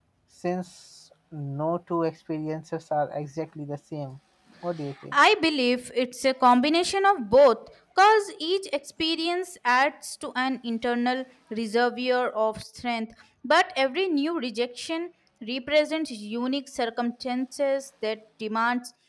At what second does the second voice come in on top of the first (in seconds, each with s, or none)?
none